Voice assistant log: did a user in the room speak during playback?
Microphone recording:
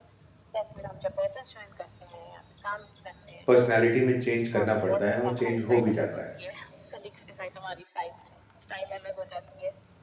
Yes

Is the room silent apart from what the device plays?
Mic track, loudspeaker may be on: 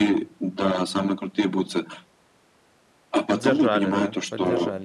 No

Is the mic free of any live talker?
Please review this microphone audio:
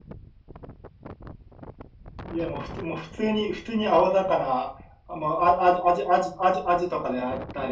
No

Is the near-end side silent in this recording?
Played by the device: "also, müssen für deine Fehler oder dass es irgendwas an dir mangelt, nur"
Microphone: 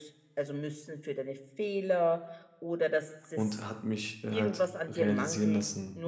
No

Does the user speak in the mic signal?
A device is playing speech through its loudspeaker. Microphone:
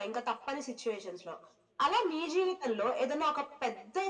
No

